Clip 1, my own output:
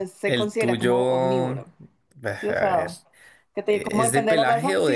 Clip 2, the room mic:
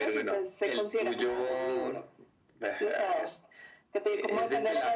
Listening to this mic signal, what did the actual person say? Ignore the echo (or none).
none